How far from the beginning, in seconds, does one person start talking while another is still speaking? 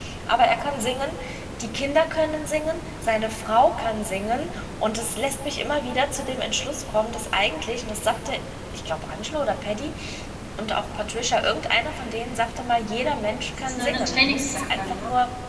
14 s

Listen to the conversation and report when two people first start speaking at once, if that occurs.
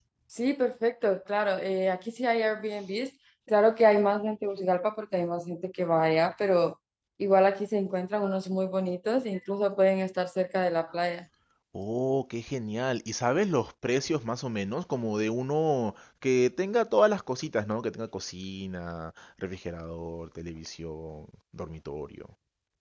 none

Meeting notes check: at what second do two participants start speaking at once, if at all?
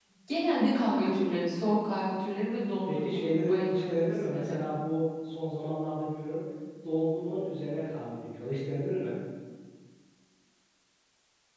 3 s

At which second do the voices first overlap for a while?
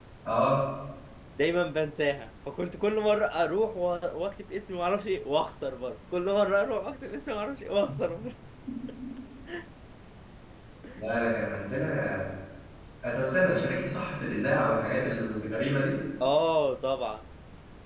none

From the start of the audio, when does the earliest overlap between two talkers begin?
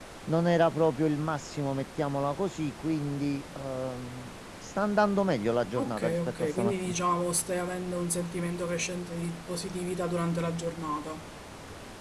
6 s

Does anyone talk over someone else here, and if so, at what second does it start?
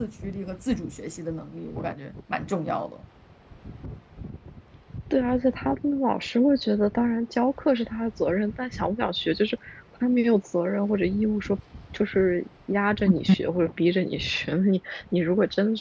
none

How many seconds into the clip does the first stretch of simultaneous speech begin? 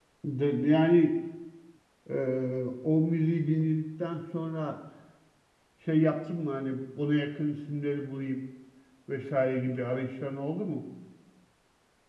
none

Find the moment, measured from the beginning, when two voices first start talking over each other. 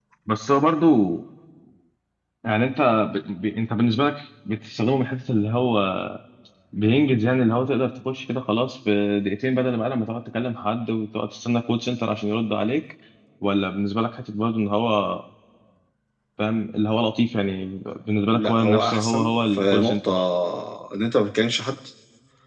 18 s

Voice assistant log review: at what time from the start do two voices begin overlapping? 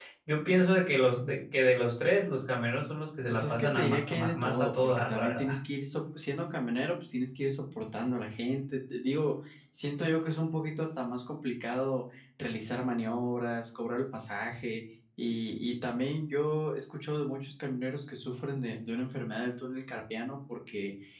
3 s

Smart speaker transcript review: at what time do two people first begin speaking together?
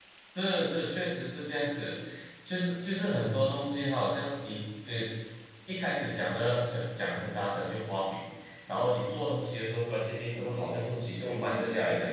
10 s

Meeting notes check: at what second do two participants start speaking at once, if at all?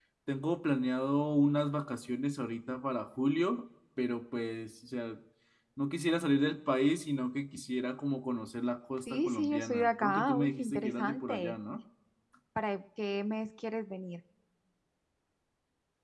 9 s

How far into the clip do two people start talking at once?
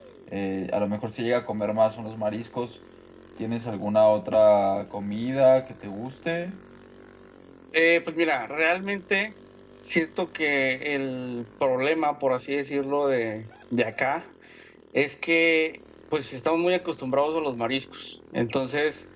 none

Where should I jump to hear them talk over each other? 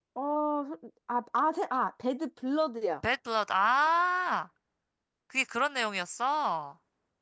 none

